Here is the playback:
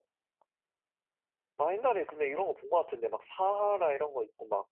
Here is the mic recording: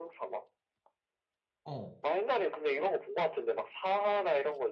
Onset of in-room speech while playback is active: 2 s

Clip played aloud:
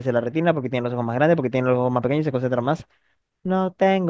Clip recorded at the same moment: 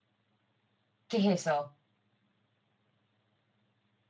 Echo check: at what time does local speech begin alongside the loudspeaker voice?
1 s

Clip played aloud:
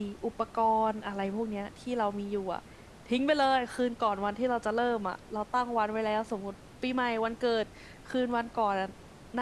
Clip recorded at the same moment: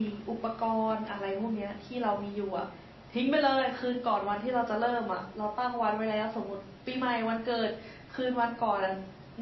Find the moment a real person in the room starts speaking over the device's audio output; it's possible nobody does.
none

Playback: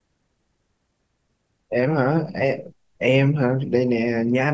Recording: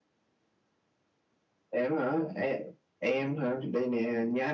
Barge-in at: none

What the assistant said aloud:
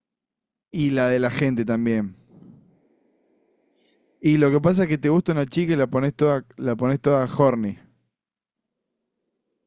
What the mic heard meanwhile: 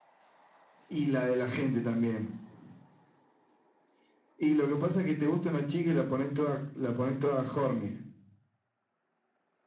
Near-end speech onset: none

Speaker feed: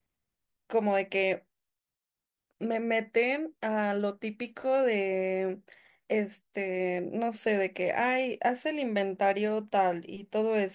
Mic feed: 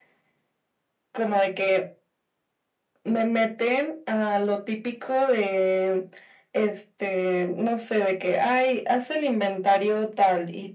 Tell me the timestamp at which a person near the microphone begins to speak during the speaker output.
none

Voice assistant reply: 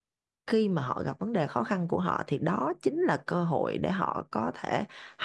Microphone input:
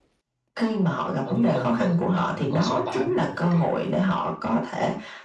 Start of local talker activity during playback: 1 s

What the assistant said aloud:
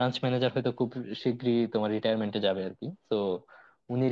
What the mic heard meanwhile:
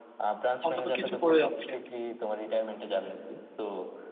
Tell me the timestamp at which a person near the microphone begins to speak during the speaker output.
1 s

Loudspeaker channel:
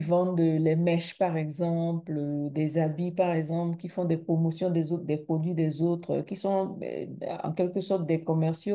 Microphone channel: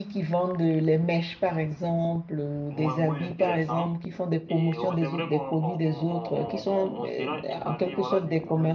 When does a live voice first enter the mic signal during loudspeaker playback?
3 s

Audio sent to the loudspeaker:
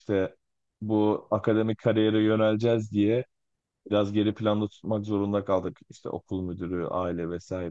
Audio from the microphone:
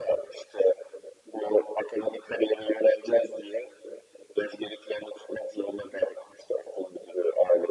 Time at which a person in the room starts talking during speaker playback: none

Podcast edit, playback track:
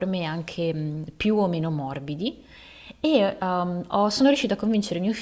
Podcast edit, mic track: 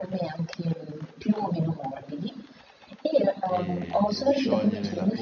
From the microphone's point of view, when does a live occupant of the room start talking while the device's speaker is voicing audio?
3 s

